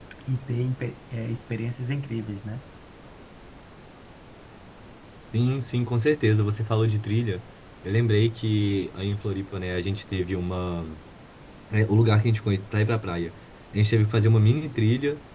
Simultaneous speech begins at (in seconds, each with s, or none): none